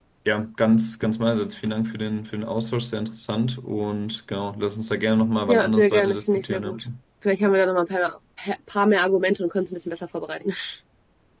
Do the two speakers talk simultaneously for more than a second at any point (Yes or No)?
Yes